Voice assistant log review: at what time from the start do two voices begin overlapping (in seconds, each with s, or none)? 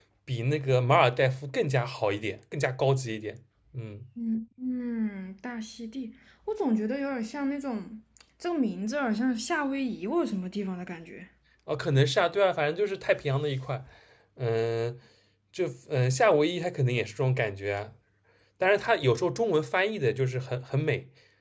none